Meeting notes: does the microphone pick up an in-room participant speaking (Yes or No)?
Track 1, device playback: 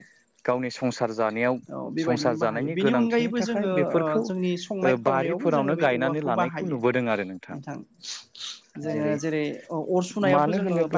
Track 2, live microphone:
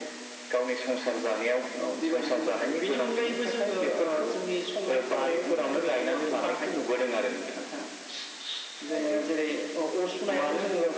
No